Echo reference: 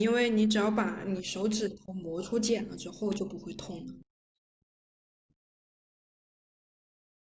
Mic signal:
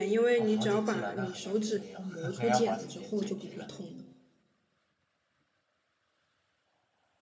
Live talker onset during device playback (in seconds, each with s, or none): 0.4 s